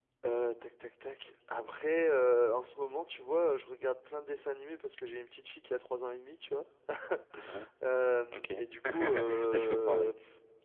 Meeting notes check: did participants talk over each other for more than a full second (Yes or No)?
Yes